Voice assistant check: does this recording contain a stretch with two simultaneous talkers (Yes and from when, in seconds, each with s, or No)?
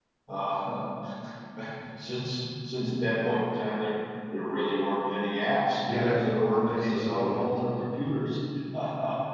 Yes, from 5.8 s